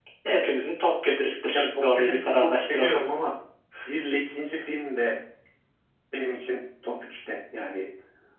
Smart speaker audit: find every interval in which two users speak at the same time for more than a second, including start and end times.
1.5-3.0

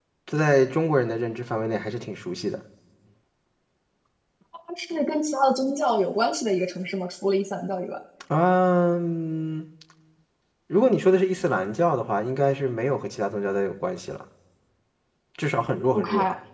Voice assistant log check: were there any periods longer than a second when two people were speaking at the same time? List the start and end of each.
none

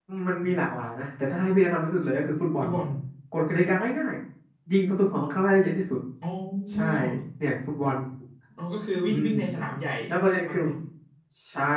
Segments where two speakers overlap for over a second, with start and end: none

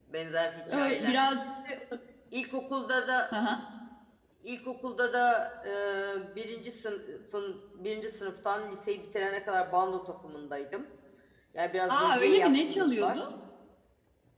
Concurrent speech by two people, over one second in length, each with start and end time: 11.9-13.2

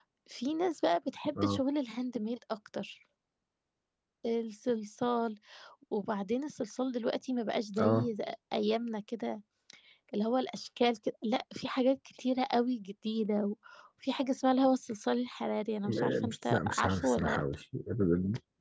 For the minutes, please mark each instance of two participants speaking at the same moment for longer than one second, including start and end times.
15.9-17.4

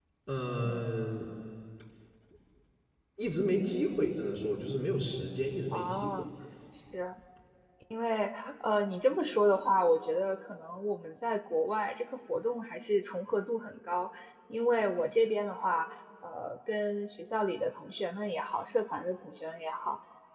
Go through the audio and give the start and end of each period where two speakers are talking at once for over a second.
none

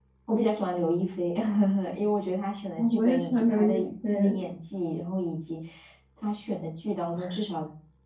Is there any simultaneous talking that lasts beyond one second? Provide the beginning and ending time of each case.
2.8-4.4

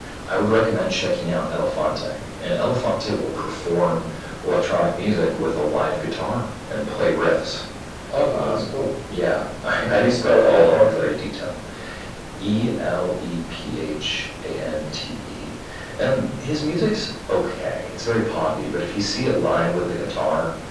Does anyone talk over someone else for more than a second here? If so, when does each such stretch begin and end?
9.9-11.1

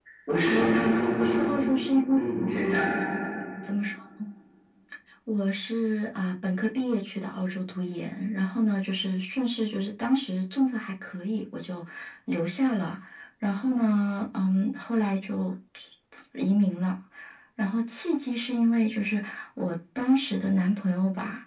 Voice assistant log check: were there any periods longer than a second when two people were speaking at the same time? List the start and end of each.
none

